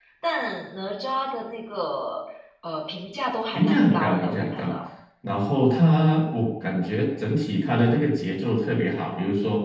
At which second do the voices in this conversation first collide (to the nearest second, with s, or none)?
4 s